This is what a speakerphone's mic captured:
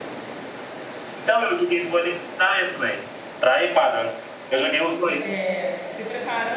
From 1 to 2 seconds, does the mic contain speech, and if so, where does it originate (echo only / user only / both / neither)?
echo only